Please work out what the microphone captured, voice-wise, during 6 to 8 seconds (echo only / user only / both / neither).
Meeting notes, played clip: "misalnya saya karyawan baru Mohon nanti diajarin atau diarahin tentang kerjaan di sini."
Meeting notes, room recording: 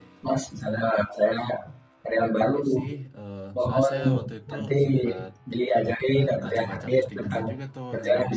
both